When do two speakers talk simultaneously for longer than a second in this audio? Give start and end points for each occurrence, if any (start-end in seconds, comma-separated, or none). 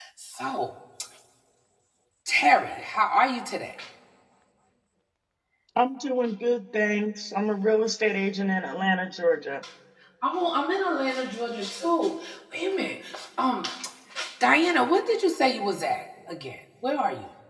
none